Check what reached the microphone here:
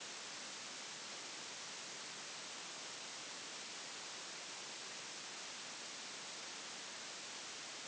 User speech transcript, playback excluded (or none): none